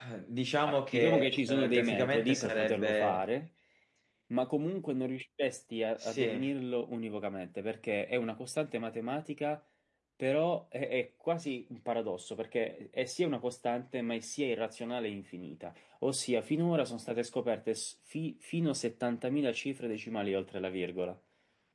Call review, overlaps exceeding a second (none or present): present